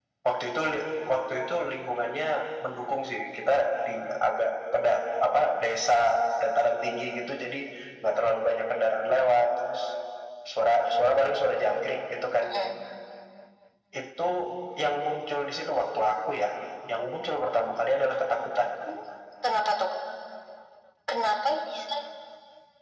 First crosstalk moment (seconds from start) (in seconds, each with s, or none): none